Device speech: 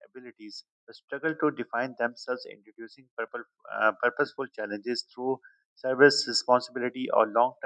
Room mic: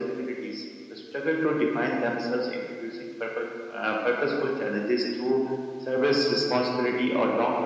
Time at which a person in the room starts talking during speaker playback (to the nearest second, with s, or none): none